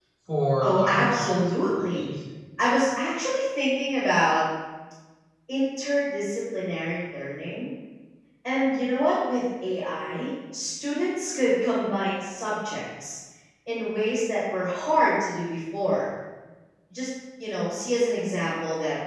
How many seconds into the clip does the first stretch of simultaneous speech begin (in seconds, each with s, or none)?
0.6 s